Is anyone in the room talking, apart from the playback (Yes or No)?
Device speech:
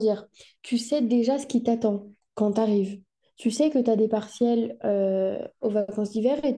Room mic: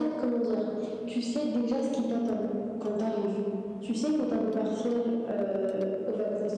No